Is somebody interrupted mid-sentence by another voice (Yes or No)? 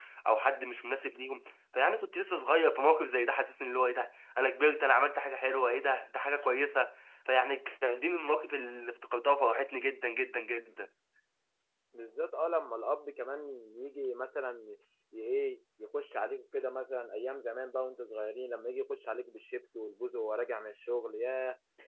No